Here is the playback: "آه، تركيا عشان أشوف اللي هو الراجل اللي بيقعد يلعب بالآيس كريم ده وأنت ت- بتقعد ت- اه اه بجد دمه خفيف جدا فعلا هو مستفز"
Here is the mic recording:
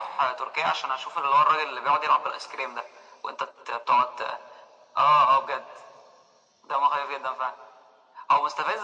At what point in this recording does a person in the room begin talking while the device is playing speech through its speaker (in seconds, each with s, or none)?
none